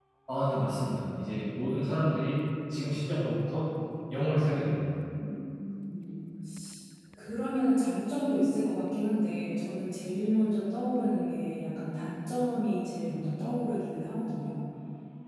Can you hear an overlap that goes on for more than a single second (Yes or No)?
No